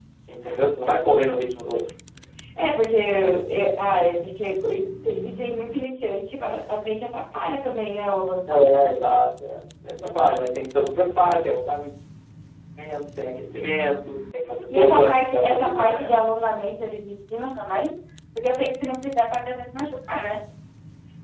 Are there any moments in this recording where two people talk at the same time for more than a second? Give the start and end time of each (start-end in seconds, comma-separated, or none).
14.7-16.1